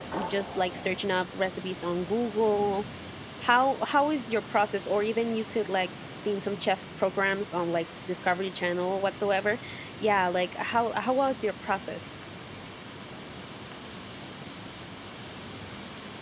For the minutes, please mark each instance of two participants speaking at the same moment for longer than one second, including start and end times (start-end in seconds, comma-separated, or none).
none